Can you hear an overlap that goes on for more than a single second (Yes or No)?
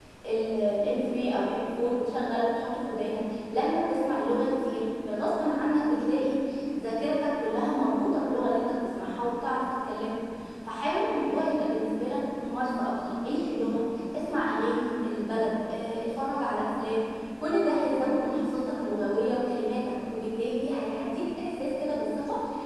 No